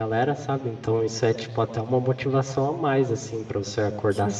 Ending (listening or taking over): listening